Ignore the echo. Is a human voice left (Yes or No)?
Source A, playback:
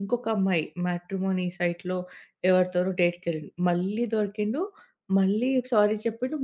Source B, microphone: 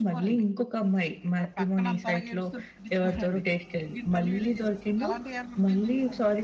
Yes